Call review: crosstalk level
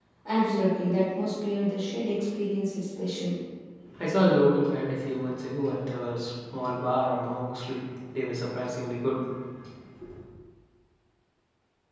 none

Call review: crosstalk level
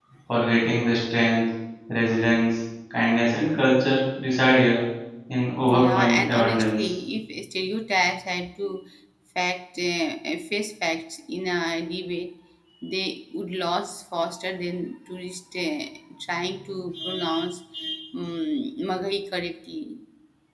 present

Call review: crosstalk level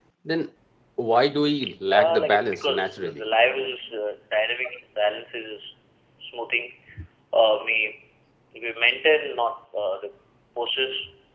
present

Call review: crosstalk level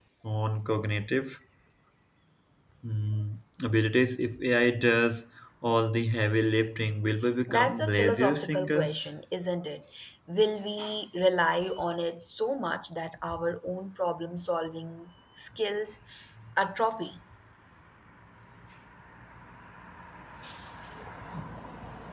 present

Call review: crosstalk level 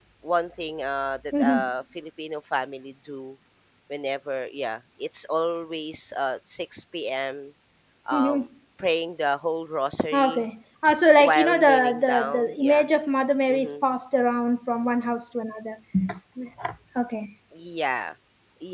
present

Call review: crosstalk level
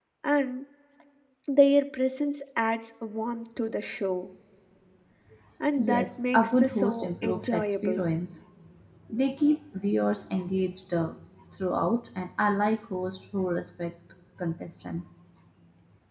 present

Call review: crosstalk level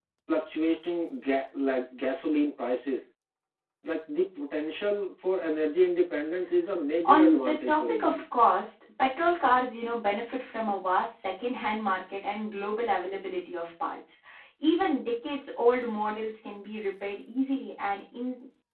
present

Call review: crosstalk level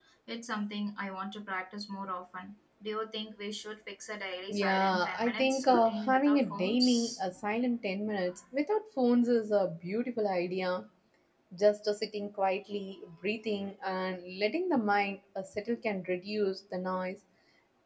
present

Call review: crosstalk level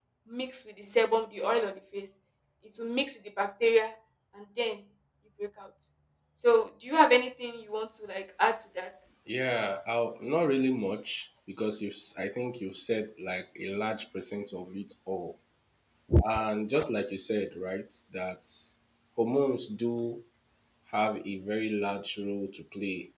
none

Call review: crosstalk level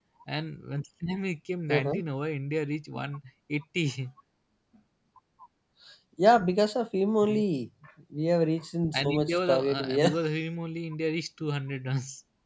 present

